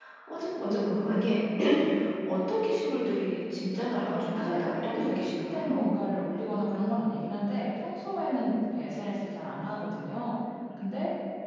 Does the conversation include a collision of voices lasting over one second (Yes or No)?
Yes